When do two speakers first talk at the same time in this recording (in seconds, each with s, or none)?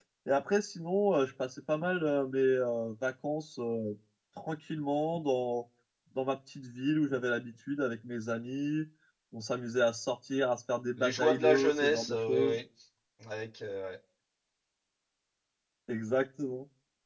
11.0 s